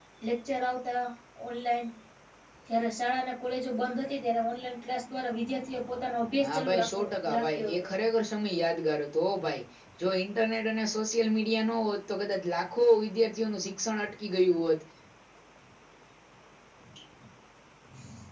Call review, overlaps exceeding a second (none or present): present